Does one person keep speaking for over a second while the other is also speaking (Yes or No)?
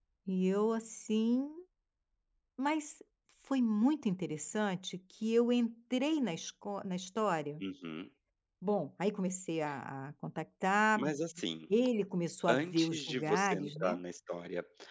Yes